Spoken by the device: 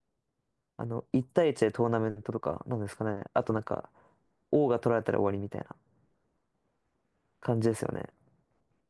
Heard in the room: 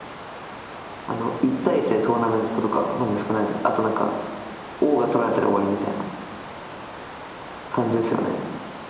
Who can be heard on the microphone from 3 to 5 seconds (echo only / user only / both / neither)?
echo only